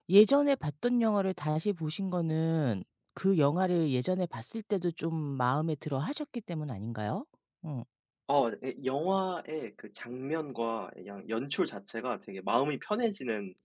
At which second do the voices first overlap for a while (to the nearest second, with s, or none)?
none